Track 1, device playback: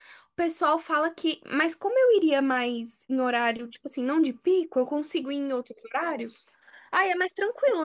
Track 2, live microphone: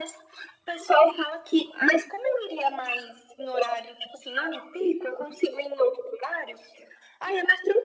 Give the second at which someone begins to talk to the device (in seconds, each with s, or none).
none